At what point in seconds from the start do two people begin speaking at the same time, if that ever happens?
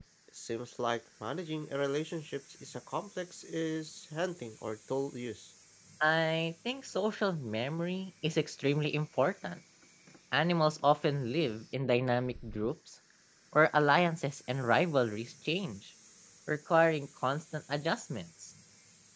none

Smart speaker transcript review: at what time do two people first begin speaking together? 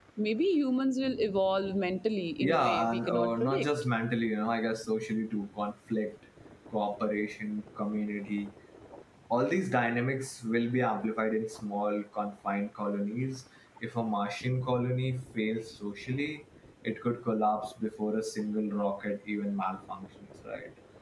2.4 s

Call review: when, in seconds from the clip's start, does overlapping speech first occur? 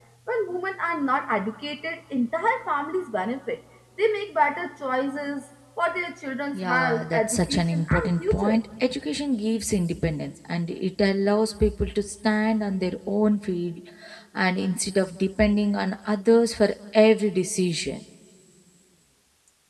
6.5 s

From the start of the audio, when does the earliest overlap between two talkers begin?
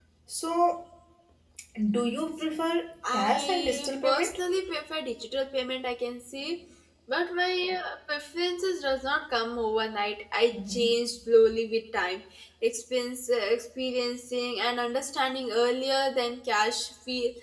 3.1 s

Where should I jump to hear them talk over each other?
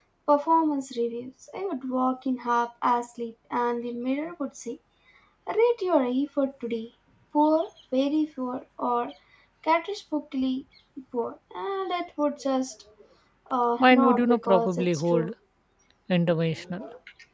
13.8 s

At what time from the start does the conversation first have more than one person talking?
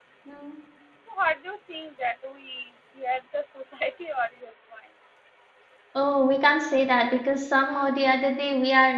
none

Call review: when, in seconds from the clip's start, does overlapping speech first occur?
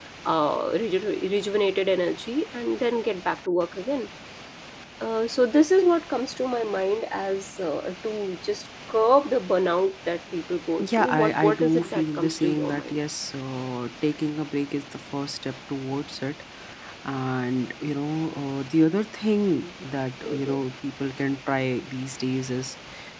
10.8 s

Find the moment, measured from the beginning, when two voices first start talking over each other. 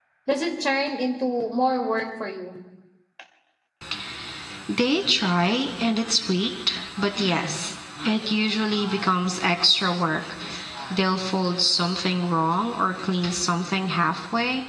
none

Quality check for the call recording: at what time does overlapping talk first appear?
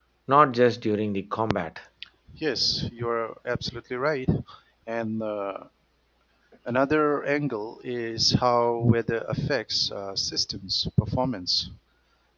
none

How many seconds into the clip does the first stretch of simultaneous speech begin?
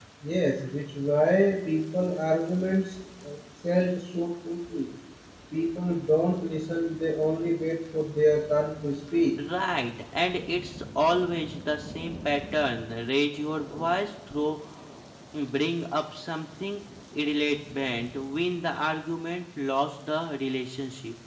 none

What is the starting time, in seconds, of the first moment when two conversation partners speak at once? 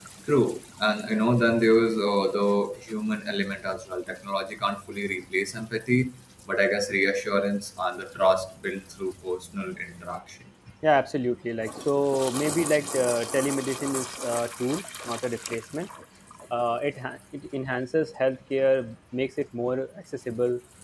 none

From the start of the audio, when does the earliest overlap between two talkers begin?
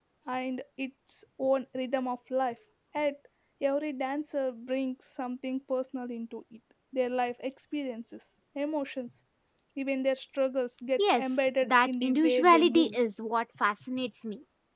11.0 s

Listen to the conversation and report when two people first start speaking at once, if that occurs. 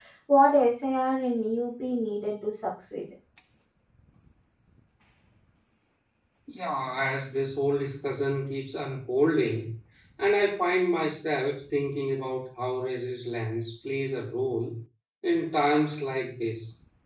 none

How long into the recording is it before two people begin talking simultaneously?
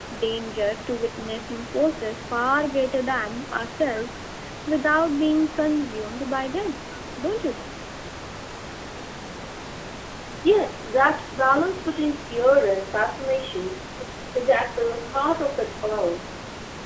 none

